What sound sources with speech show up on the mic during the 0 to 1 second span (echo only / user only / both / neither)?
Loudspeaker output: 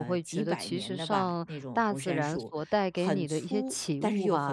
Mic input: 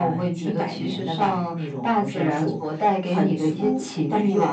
echo only